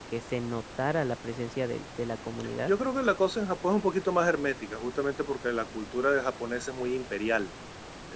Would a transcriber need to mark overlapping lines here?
No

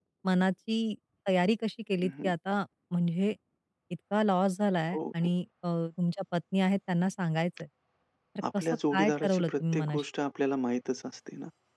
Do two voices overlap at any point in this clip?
Yes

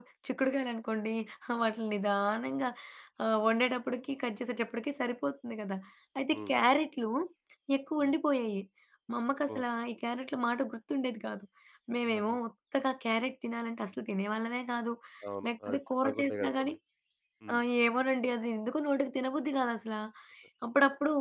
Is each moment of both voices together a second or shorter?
No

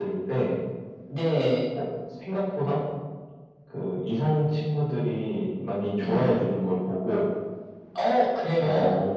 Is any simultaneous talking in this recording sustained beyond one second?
No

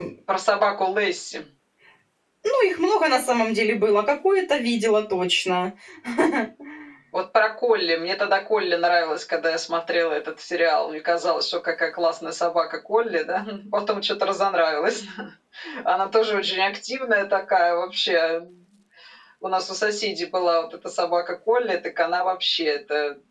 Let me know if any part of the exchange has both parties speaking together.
No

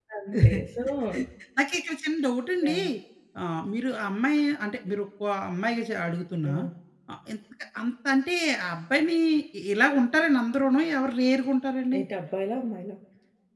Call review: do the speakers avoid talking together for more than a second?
Yes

